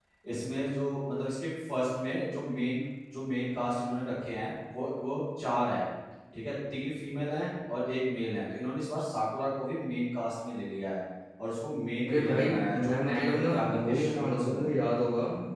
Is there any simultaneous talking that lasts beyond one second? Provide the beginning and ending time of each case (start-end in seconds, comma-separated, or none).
12.1-14.7